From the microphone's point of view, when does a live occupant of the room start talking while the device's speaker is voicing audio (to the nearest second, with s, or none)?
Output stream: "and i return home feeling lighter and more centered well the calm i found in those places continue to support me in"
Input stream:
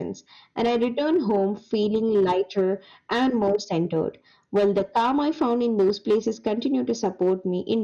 none